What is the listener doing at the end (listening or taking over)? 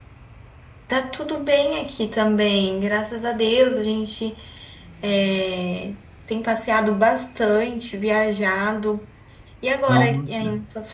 listening